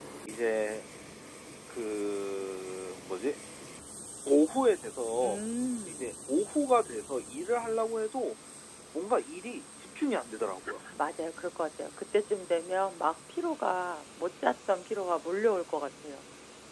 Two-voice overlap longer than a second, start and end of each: none

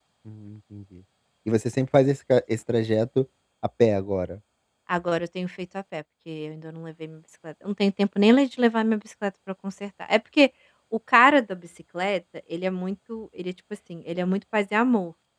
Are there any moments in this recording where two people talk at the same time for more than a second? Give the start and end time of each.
none

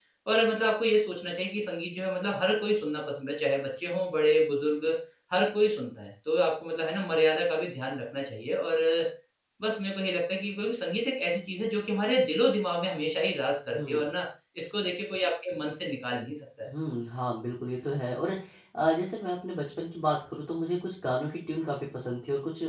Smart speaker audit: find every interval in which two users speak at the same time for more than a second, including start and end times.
none

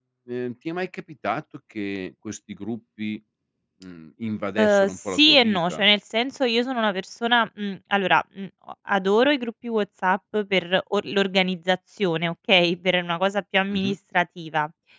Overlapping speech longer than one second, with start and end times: 4.6-5.8

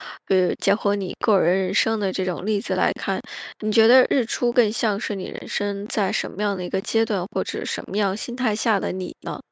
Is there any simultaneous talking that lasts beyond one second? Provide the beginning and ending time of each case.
none

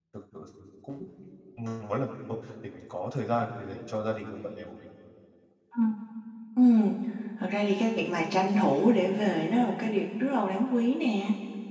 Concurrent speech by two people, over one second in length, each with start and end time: none

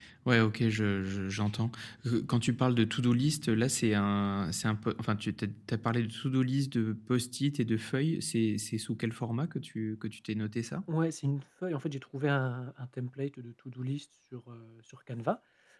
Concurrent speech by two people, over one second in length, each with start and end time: none

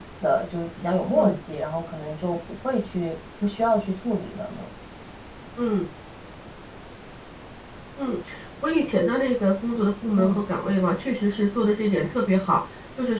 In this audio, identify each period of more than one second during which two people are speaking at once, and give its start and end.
none

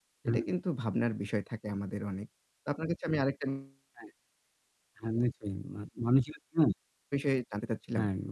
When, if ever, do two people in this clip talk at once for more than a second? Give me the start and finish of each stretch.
none

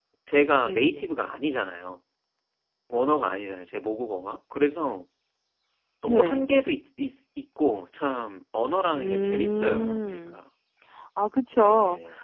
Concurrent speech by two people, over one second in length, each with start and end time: 8.9-10.4

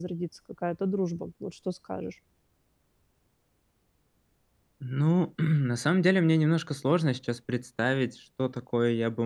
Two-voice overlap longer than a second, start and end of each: none

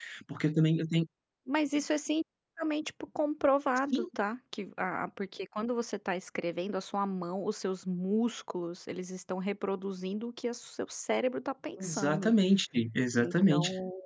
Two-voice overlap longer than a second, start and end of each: none

